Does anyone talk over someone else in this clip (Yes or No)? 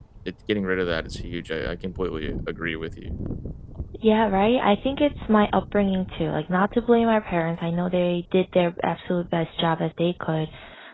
No